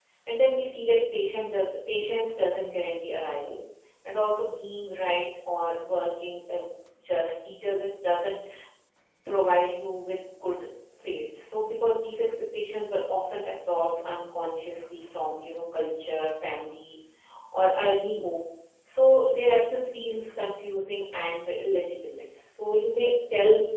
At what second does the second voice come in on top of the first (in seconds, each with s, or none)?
none